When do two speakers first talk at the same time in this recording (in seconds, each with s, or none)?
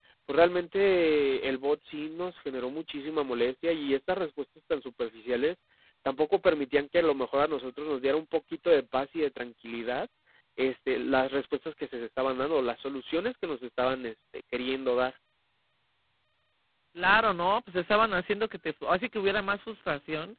none